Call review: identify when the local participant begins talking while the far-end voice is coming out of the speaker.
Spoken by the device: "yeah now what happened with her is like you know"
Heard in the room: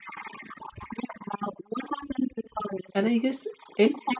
2.9 s

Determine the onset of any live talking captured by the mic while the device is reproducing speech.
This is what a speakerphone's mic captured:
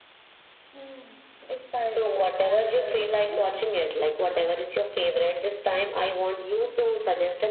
none

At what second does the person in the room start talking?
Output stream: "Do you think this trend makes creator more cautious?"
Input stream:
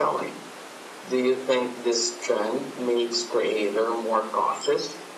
none

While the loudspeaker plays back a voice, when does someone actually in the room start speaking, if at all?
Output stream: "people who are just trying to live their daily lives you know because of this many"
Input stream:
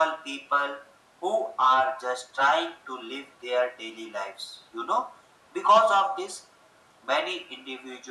none

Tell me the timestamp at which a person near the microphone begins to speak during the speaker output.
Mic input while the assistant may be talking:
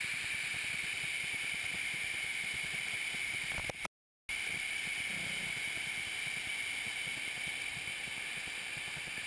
none

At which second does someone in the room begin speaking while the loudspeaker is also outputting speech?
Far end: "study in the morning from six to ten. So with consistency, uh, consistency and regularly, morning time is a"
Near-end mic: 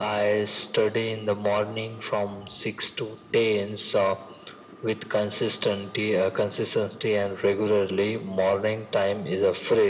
none

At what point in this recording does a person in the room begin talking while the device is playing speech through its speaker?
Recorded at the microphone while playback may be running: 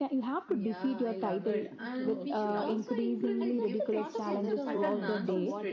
0.5 s

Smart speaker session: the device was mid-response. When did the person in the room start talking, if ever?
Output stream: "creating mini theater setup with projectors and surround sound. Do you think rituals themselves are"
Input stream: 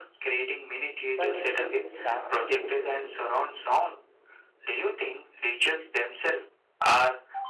1.1 s

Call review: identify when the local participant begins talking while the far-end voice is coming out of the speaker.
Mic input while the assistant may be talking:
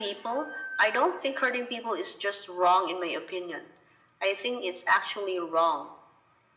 none

